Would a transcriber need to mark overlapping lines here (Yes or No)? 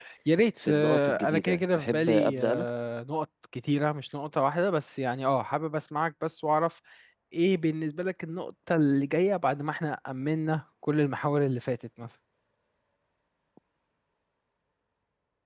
Yes